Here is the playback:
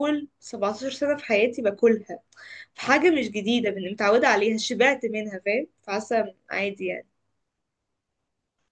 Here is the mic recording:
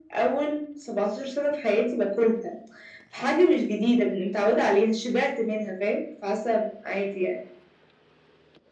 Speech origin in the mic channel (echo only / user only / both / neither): echo only